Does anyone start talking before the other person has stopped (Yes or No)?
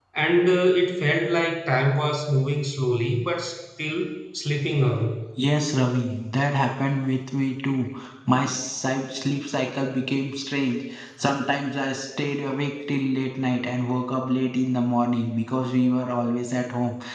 No